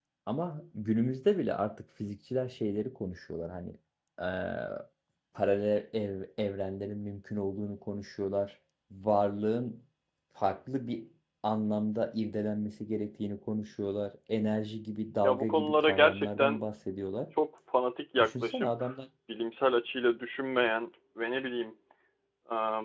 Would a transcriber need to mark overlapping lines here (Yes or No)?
Yes